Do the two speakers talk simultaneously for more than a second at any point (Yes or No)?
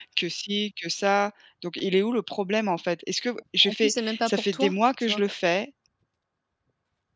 Yes